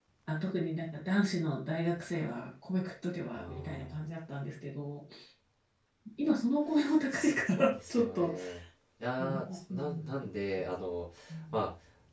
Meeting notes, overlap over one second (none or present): present